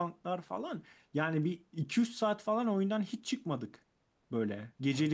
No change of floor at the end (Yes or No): Yes